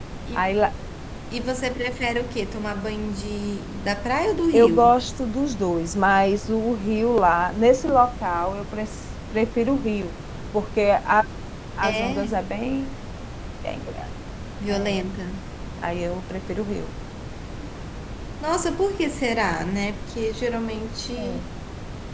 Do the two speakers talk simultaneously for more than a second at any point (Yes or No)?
No